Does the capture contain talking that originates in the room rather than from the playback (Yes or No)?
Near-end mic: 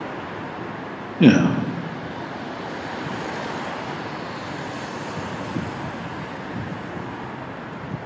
Yes